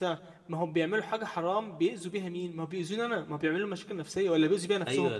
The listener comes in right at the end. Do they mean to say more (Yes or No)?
Yes